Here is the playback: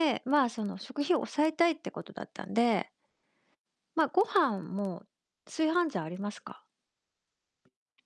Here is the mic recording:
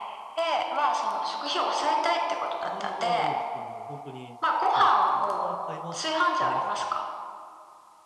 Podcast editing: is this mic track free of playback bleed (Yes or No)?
No